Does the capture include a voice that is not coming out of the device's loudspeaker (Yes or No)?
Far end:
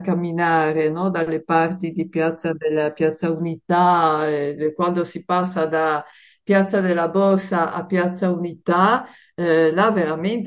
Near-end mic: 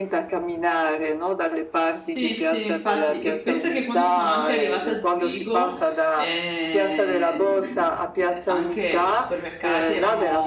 Yes